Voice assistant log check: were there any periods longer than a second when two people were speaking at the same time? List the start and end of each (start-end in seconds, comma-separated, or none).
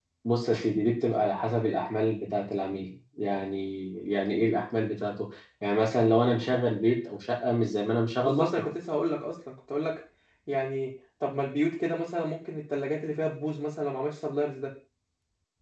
none